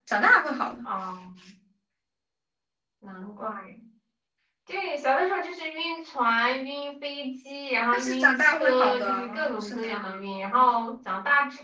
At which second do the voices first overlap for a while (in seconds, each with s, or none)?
7.9 s